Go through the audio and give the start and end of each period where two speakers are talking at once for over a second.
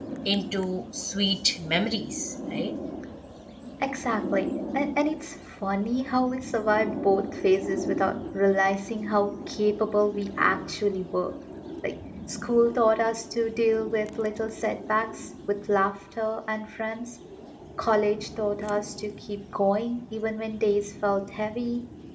none

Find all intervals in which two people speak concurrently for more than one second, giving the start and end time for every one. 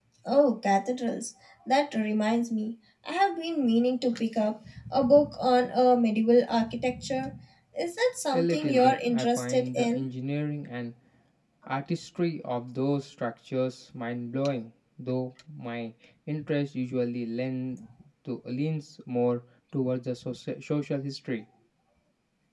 8.3-10.0

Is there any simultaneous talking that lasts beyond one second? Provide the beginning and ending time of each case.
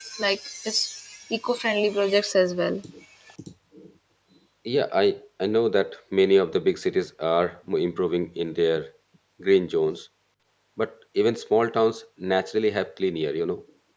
none

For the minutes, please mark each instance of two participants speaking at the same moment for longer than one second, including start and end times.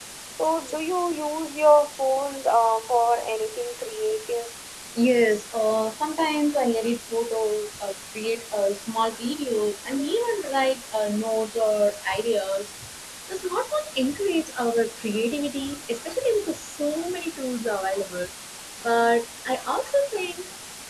none

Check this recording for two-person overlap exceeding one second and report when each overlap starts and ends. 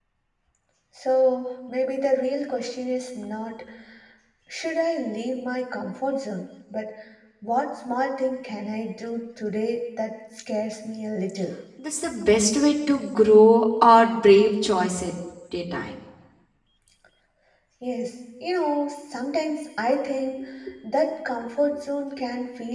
none

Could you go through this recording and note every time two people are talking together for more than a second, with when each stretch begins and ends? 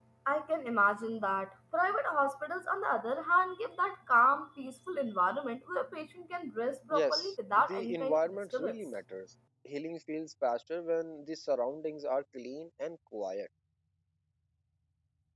6.9-8.7

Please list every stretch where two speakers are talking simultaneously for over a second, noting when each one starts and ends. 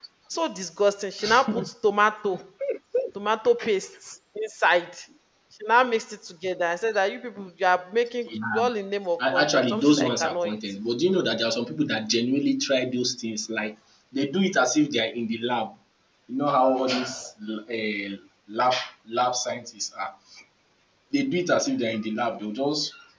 9.2-10.6

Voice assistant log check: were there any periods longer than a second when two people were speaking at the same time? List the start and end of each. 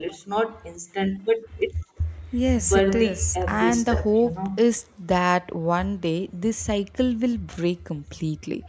2.7-4.6

